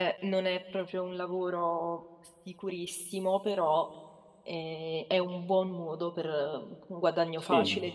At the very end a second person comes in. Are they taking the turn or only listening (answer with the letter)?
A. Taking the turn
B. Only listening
A